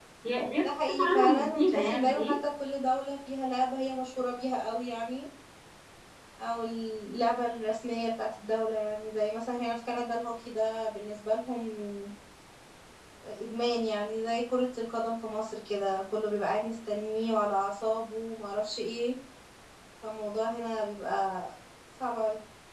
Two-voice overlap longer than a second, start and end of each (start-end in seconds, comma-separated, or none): 0.6-2.4